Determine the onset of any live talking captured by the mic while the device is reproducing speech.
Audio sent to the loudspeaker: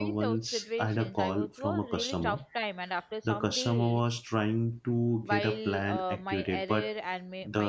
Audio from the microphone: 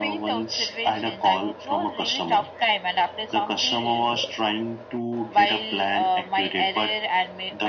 none

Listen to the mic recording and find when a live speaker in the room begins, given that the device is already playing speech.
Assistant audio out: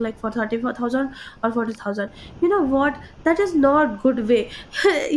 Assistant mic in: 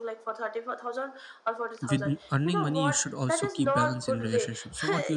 1.8 s

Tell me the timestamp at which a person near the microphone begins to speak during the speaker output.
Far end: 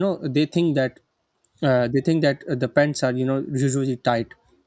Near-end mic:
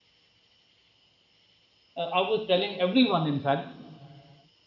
2.0 s

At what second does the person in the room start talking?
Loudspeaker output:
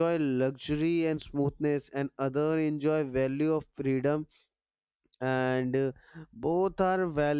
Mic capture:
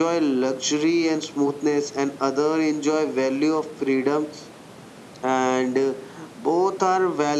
none

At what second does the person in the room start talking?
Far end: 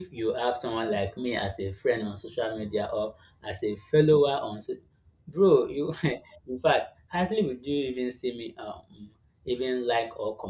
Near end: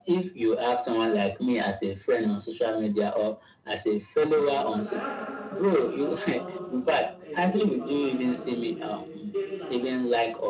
4.4 s

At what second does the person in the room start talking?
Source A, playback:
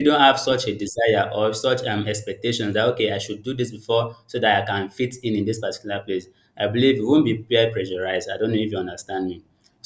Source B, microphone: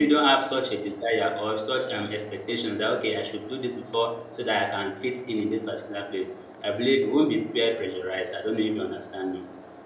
none

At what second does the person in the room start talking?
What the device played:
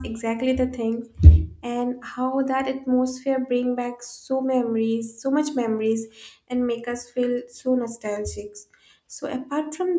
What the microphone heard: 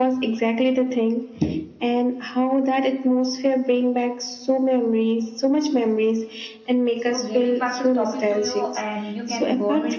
6.9 s

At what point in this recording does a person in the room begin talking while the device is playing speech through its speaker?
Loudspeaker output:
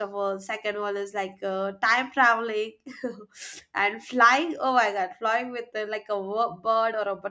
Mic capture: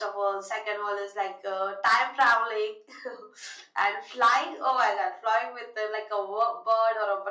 none

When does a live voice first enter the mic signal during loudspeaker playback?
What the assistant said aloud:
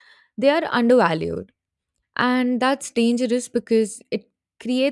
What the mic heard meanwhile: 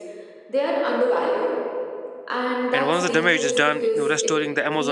2.7 s

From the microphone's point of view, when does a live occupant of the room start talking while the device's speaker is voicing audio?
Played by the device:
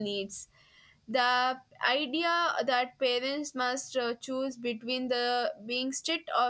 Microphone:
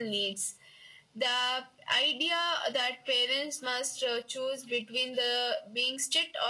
none

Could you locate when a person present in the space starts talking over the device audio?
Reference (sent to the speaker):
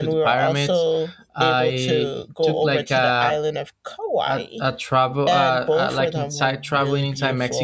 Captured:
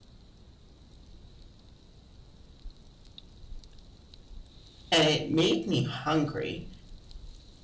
4.9 s

